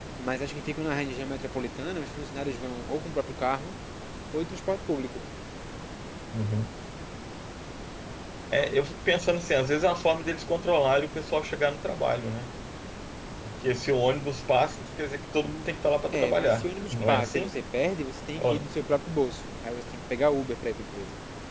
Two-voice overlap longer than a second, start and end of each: 16.1-17.5

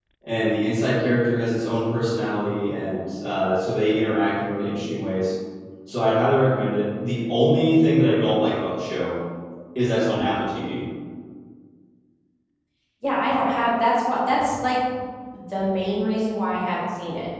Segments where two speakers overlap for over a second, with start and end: none

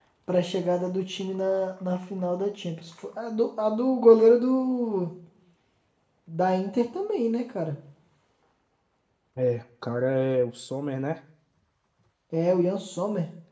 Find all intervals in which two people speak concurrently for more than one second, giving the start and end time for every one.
none

